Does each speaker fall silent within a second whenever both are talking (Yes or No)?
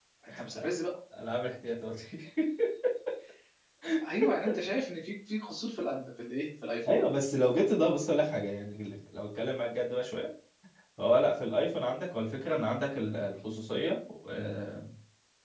Yes